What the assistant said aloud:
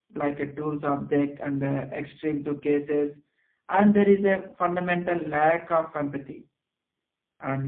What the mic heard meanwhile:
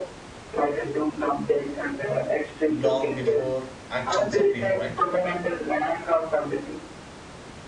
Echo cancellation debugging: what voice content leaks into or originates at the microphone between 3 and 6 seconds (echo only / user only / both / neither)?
both